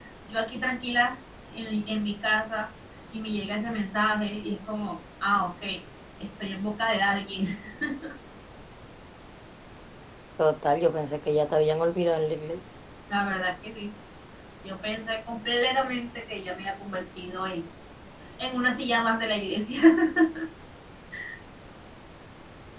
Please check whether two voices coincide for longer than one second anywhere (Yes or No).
No